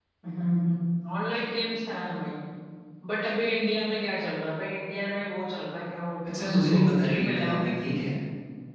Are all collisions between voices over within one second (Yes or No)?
No